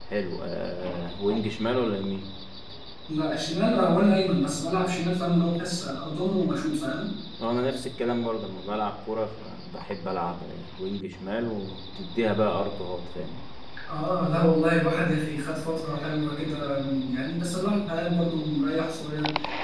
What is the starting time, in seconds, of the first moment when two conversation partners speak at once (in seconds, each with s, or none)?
none